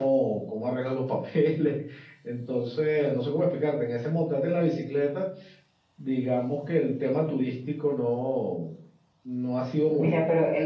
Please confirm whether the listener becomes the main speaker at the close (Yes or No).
Yes